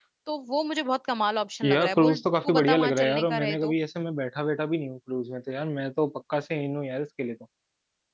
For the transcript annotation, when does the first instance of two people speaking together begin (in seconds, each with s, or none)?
1.6 s